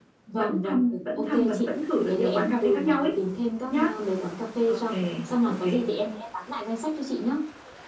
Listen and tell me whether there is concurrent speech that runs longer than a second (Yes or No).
Yes